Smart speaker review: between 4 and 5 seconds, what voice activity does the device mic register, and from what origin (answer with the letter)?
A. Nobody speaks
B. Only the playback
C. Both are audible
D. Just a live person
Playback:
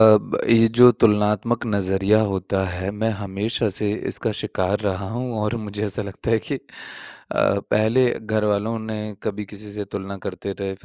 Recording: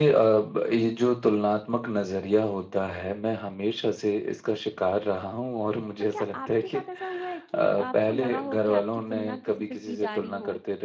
B